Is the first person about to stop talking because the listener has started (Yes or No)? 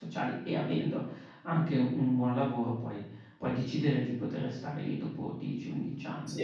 Yes